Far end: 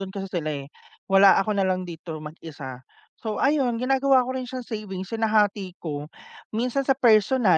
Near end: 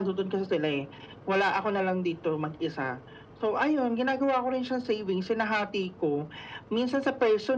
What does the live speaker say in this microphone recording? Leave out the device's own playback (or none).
none